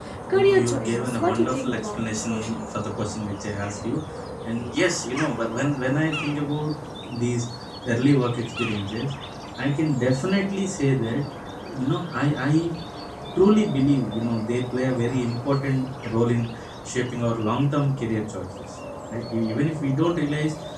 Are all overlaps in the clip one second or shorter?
No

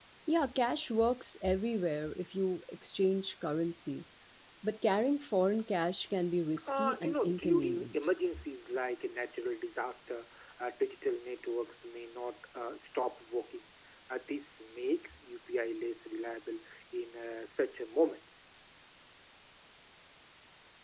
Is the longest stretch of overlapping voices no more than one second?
No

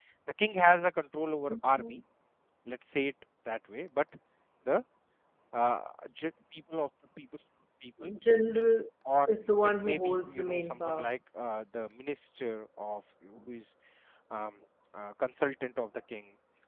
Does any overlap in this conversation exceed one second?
Yes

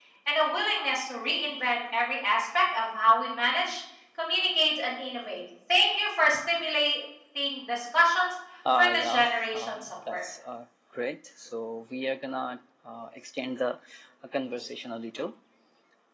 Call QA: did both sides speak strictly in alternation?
No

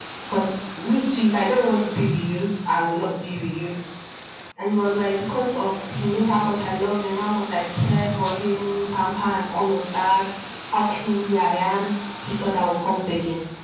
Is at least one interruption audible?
No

